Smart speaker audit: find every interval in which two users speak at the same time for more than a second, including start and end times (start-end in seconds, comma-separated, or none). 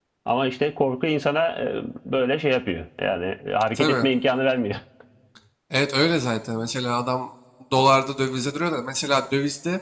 none